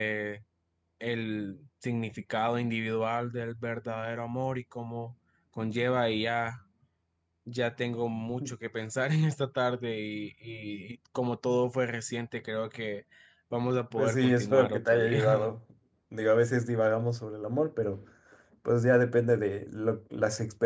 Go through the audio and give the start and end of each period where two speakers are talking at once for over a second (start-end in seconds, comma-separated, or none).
14.0-15.5